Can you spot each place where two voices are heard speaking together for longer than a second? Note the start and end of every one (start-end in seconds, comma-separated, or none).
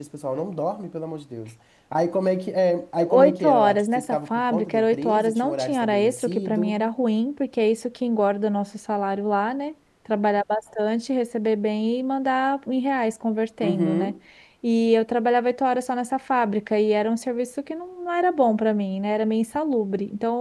3.1-6.8